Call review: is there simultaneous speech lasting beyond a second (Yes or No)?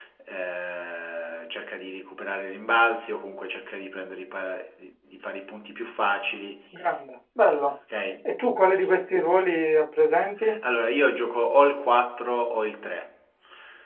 No